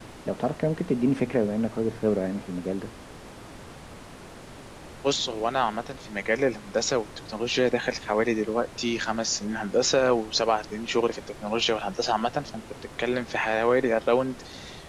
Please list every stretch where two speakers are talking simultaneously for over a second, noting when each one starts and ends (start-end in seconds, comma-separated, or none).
none